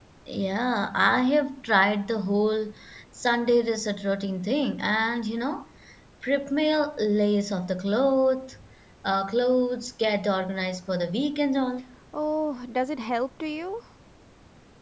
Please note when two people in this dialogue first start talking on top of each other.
none

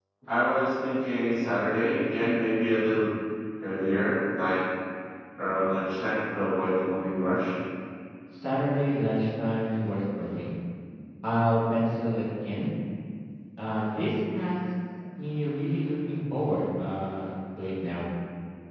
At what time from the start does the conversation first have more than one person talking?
none

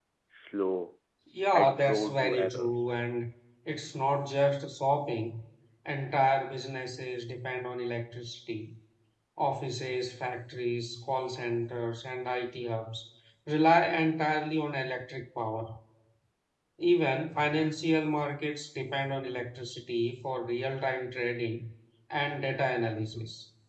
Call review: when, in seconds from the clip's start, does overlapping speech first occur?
1.5 s

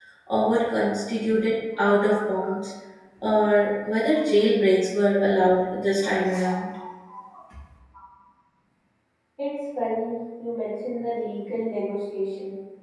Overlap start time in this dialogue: none

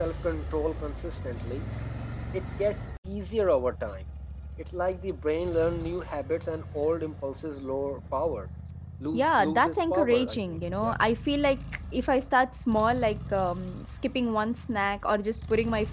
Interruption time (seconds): 9.1 s

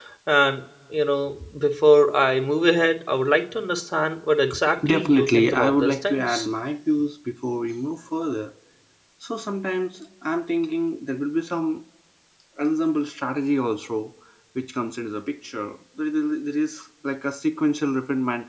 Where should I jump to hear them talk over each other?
4.9 s

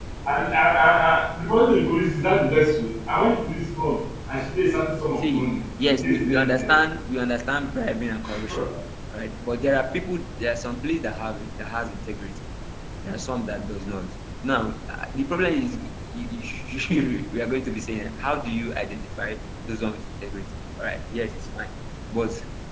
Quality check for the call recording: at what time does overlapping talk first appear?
5.2 s

